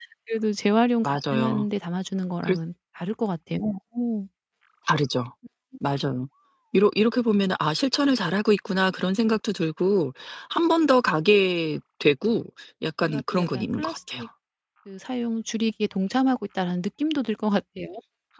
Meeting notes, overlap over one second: present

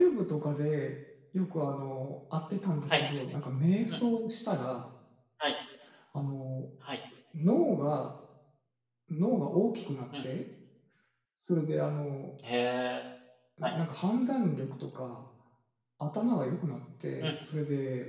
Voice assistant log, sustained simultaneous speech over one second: none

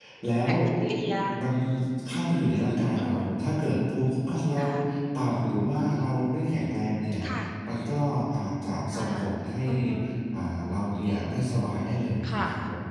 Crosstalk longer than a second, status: none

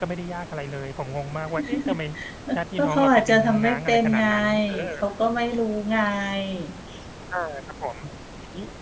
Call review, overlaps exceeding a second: present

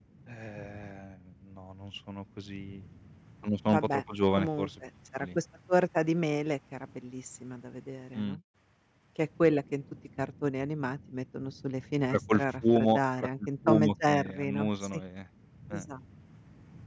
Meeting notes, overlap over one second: present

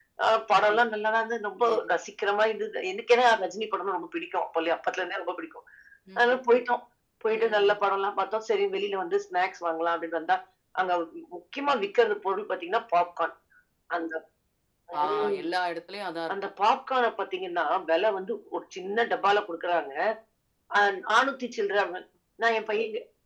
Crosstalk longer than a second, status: none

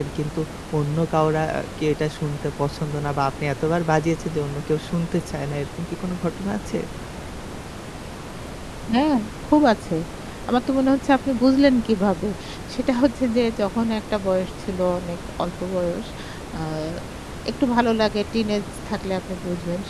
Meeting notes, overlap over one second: none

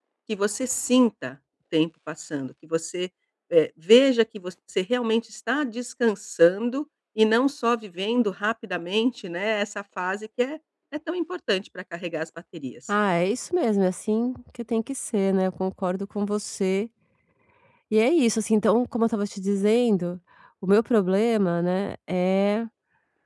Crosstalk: none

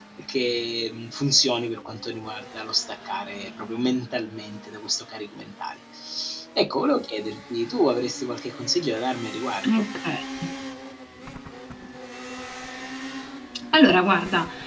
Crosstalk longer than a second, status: none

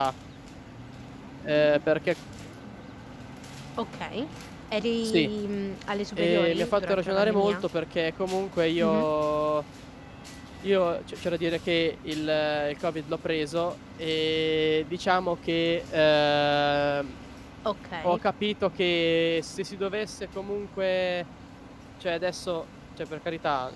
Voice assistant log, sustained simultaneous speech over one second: present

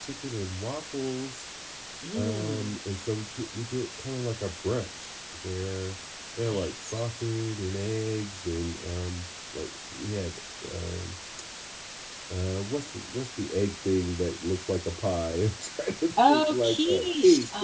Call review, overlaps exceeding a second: present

